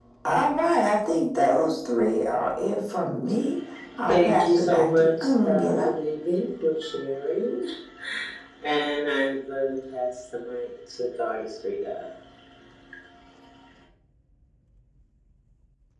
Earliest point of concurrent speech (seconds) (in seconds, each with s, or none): 4.1 s